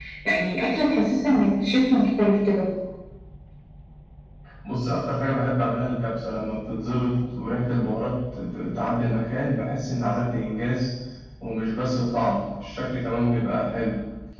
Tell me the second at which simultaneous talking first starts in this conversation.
none

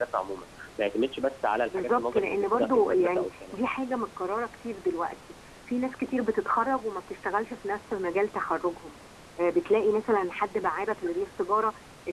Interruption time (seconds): 1.7 s

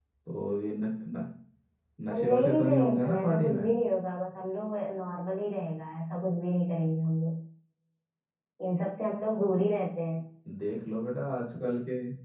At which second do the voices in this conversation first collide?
2.1 s

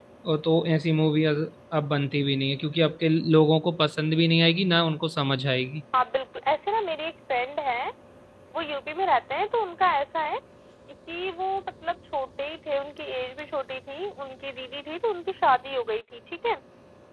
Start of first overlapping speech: none

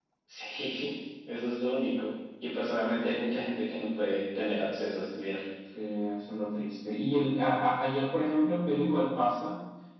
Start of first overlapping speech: none

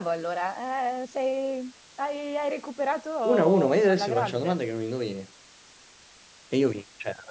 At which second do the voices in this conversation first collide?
3.2 s

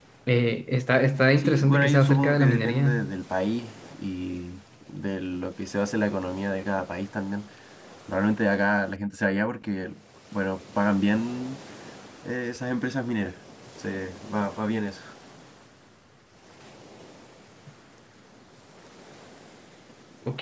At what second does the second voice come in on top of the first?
1.4 s

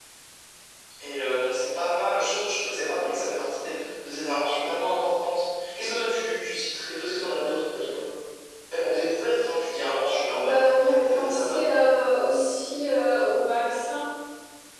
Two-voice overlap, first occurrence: 10.3 s

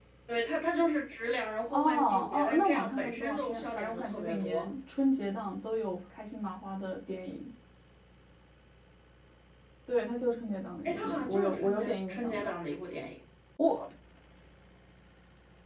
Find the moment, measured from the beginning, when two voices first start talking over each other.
1.7 s

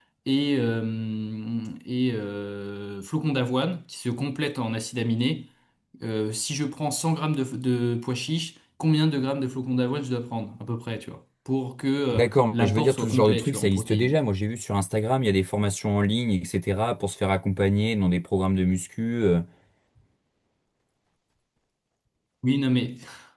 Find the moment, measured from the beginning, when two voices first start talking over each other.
12.1 s

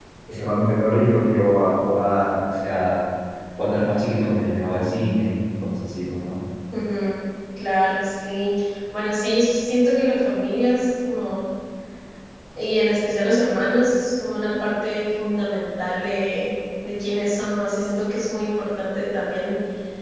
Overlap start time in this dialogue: none

